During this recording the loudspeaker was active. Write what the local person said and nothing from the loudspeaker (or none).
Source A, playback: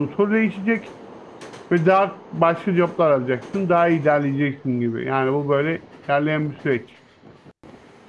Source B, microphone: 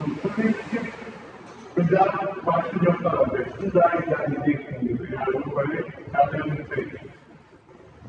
none